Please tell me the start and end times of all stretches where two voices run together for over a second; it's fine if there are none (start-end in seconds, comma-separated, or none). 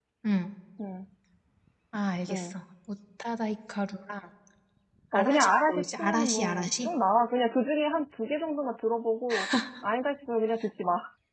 5.1-6.9